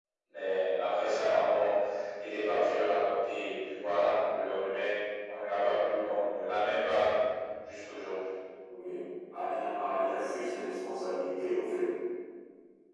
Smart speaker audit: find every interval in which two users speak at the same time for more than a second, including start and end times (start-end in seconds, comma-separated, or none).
none